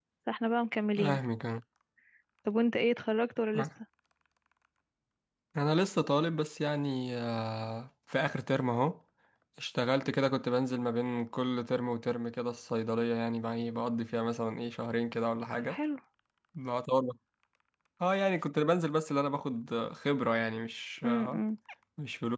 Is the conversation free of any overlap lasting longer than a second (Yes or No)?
Yes